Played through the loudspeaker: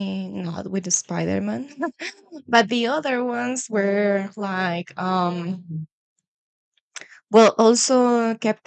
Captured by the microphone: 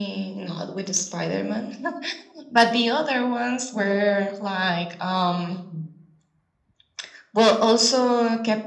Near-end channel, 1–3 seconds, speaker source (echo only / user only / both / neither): echo only